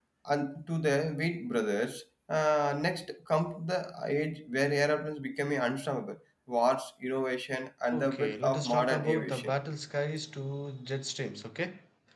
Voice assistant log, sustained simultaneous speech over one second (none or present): present